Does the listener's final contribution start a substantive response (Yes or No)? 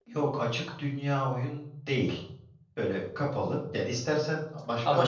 No